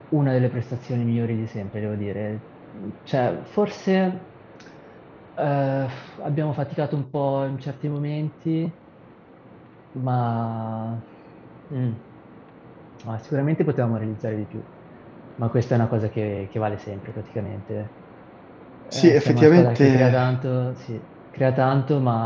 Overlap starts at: 18.9 s

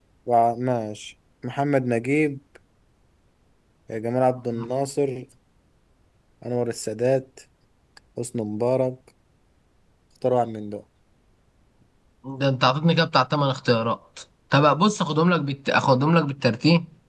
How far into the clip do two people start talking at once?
none

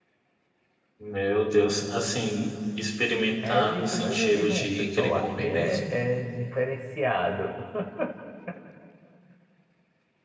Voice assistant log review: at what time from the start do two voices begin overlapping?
3.4 s

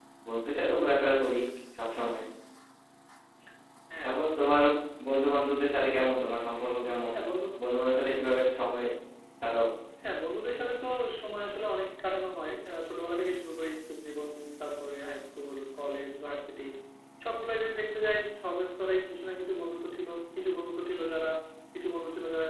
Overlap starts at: none

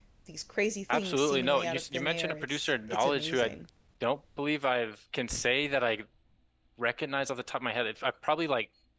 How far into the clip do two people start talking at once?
0.9 s

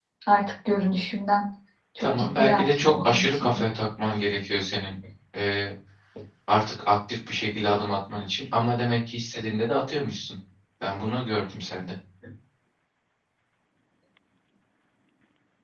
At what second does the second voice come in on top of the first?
2.0 s

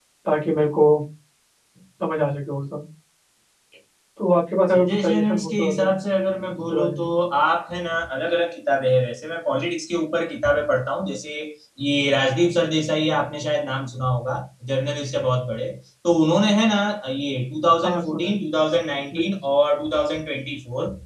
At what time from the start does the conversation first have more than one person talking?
4.7 s

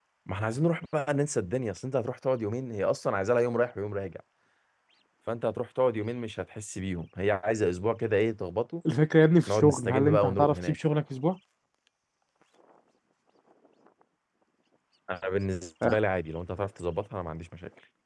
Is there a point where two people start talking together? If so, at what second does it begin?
9.5 s

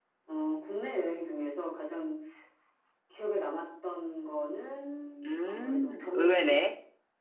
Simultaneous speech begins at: 5.2 s

